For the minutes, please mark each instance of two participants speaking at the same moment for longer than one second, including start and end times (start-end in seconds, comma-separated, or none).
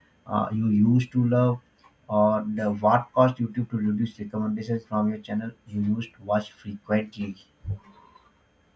none